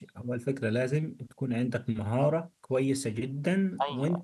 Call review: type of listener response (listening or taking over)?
listening